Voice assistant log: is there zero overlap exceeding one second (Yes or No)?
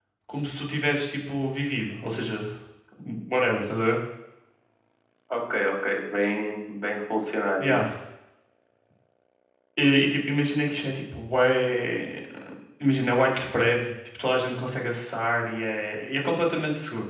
Yes